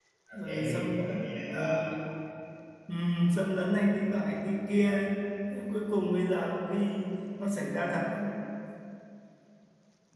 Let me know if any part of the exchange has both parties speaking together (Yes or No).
Yes